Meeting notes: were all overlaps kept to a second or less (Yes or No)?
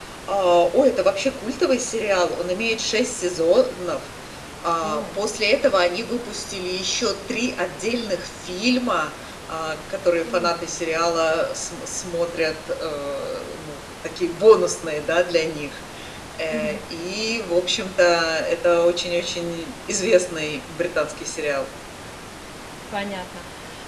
Yes